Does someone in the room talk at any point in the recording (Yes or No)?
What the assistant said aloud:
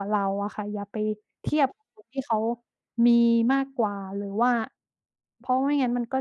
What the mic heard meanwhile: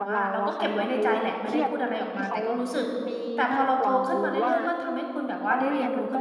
Yes